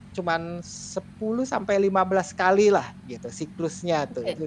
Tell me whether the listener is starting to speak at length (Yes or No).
Yes